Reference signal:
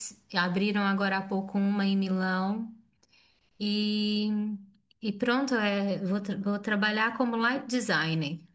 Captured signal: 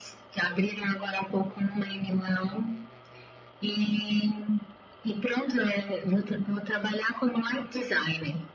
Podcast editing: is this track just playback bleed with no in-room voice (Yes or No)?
Yes